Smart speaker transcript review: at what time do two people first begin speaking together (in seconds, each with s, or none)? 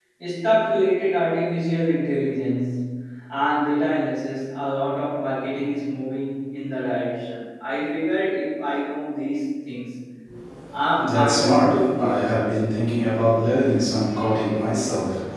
11.0 s